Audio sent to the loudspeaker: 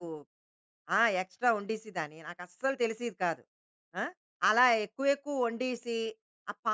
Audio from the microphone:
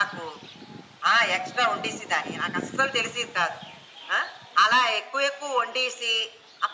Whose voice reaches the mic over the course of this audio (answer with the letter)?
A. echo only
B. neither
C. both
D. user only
A